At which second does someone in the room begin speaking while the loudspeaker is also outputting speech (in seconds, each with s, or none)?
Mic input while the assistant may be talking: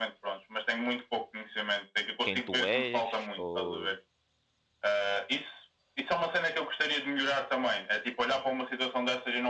2.2 s